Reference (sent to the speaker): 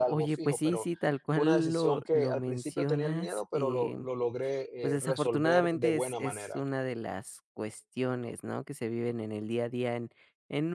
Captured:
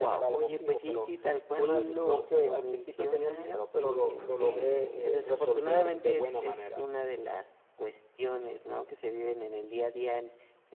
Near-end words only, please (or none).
Okey.